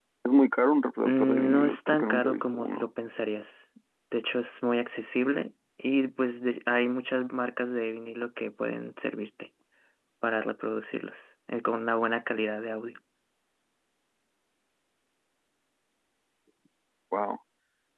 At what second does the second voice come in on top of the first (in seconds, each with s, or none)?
1.0 s